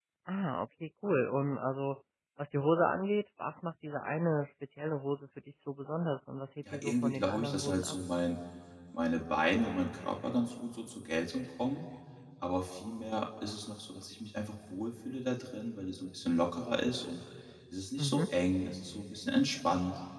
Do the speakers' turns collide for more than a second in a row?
Yes, from 6.7 s

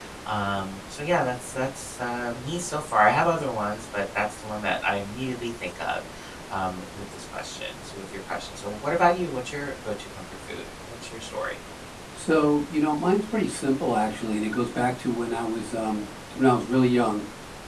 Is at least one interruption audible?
No

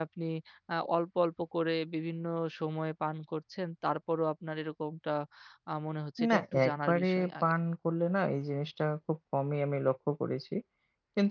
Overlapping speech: Yes, from 6.3 s

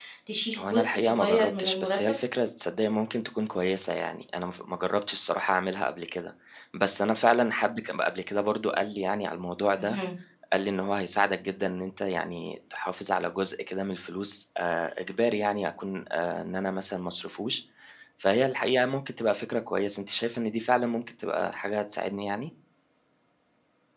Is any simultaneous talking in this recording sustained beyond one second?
Yes, from 0.6 s

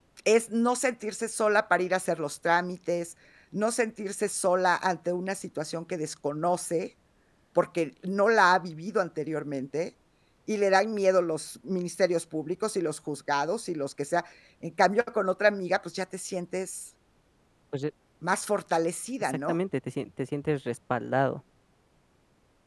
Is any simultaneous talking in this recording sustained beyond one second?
No

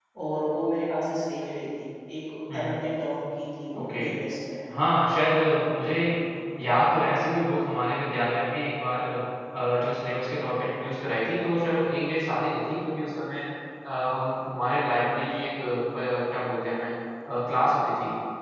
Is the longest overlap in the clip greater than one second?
No

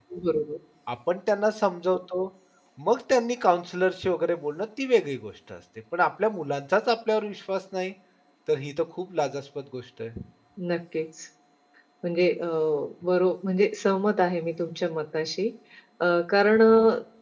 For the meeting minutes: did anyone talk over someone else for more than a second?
No

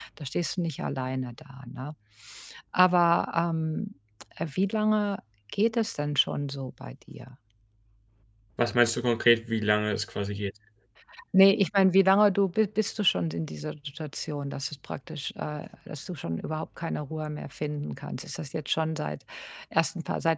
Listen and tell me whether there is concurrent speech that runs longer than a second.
No

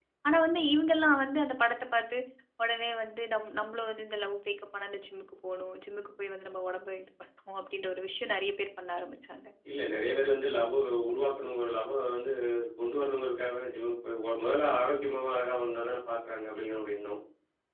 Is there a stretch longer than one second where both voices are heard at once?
No

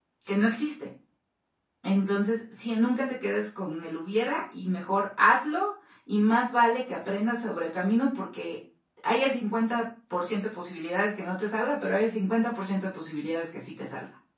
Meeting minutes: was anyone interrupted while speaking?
No

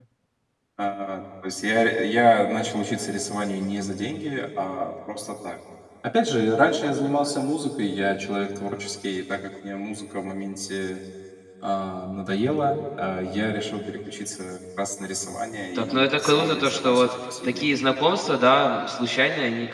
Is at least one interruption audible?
Yes, from 15.8 s

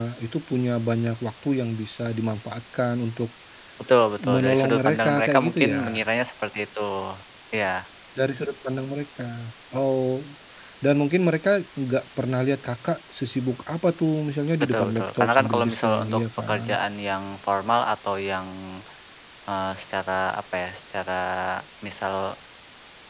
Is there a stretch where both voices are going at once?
Yes, from 4.3 s

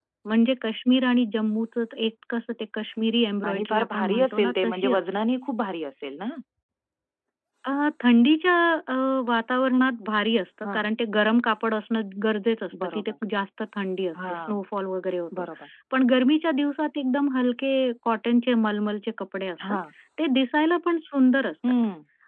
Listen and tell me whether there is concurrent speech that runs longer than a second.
Yes, from 3.5 s

